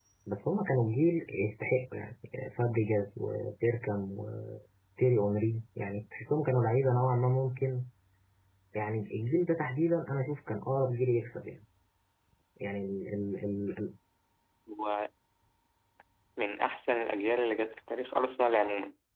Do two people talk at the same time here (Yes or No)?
No